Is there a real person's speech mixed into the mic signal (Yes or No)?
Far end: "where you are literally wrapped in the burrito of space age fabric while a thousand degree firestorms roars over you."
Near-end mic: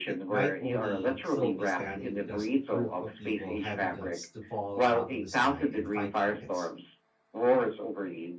Yes